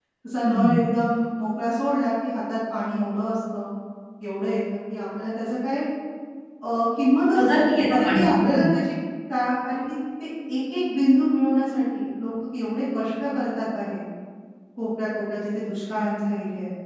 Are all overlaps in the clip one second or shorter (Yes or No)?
No